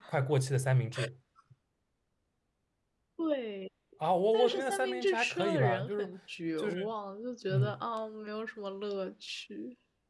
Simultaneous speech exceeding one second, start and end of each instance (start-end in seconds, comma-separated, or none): 4.3-6.1